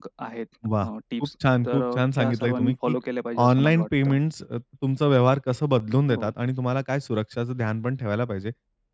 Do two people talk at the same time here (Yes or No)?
Yes